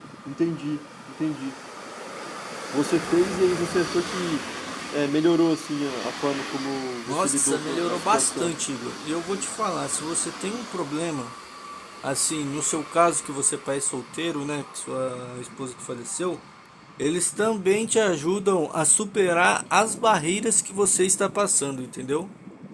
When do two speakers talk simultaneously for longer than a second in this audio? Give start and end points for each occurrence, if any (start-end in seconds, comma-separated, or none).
7.1-8.5